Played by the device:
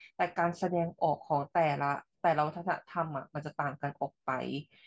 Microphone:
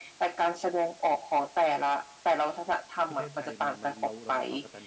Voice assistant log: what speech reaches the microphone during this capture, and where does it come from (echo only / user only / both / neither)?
both